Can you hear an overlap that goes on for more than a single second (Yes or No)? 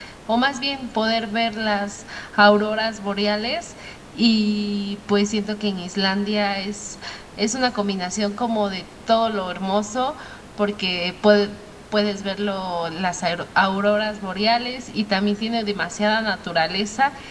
No